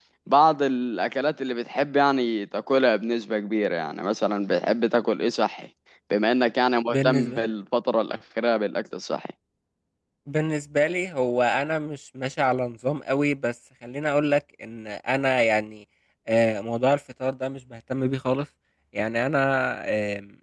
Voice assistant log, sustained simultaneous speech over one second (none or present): none